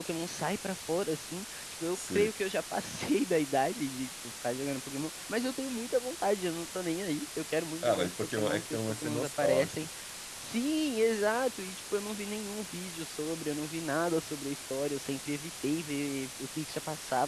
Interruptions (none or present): present